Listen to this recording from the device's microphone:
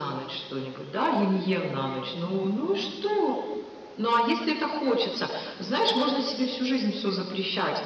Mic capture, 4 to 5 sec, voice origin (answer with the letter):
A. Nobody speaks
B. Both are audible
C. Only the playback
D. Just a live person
C